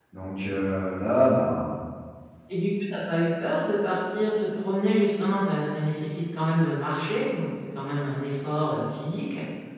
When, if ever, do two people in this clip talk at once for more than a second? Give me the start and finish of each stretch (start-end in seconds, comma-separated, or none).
none